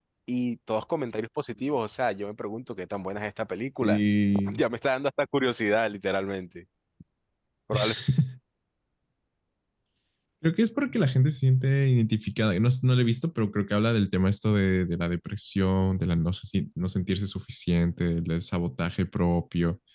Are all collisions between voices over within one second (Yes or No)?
Yes